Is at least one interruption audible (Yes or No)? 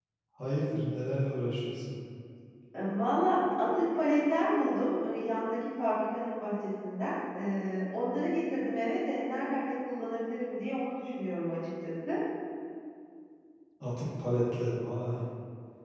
No